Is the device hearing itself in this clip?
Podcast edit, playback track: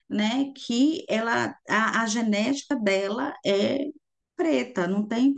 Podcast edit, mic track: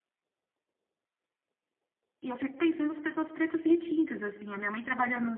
No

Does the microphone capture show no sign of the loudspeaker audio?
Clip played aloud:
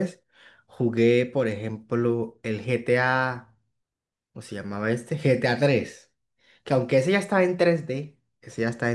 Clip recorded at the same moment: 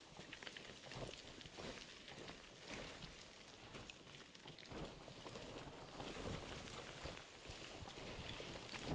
Yes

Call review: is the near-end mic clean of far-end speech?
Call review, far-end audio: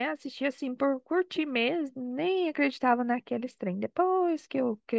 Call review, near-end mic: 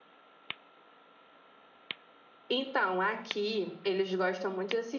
Yes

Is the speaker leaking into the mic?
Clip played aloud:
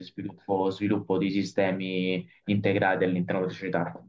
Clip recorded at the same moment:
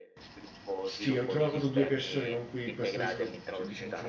Yes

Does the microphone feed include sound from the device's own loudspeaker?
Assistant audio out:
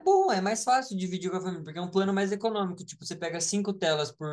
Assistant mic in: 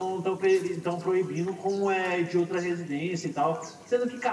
No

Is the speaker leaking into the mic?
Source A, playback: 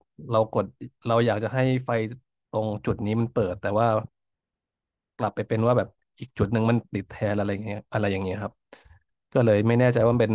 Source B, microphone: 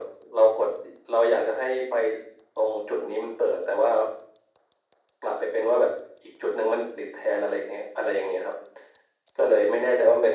Yes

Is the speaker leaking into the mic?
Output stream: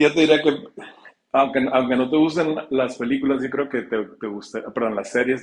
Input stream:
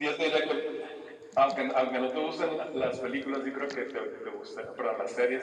Yes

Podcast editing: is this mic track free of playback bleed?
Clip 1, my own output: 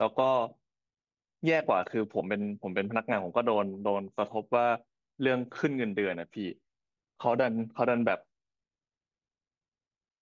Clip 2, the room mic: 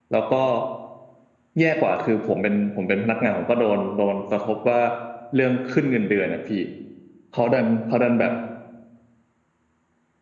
No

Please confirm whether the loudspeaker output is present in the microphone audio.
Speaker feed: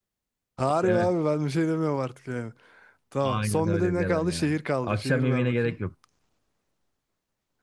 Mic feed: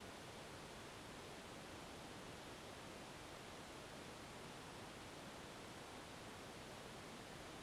No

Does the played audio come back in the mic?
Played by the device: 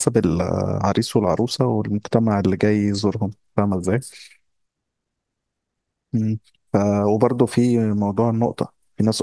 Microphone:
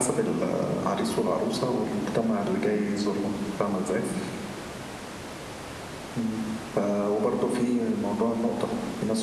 Yes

